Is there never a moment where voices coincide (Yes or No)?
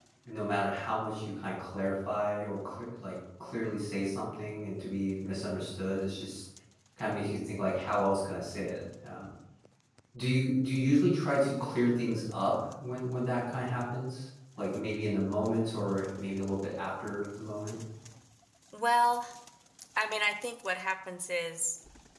Yes